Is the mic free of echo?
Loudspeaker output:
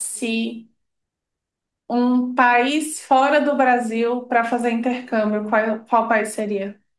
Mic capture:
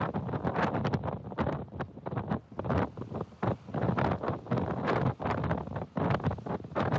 Yes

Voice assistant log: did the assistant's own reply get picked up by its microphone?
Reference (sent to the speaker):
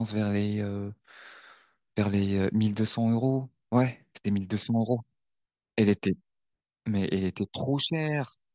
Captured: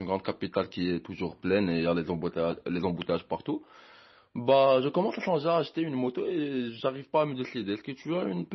No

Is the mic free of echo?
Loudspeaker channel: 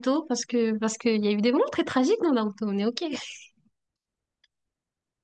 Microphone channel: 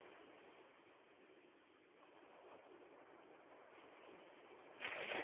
Yes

